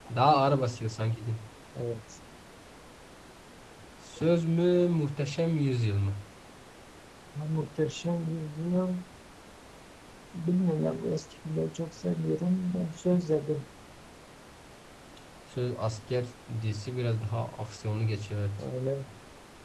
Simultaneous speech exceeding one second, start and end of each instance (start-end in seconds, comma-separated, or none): none